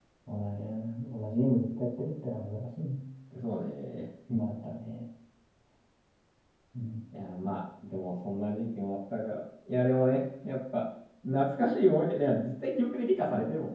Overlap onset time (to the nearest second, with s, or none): none